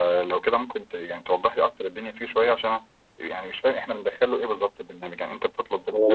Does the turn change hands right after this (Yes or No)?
Yes